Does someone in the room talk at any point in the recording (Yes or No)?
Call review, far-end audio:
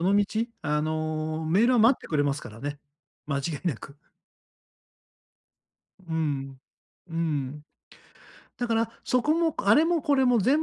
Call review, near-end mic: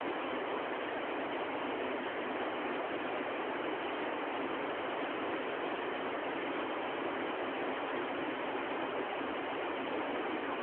No